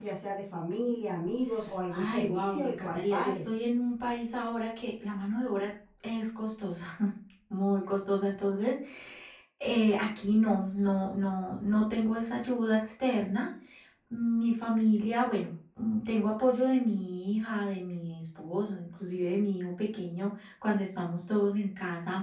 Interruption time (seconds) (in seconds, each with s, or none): 1.9 s